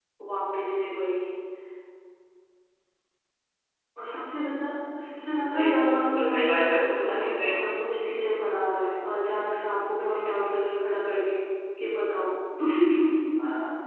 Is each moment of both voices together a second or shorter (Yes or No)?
No